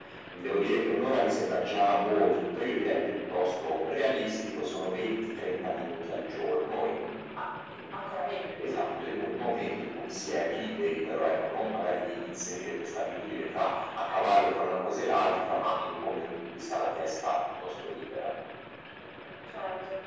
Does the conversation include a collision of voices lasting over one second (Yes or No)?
No